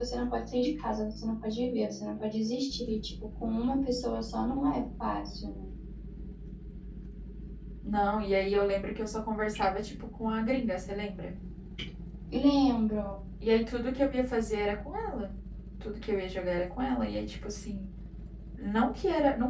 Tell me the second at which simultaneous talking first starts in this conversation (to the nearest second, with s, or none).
none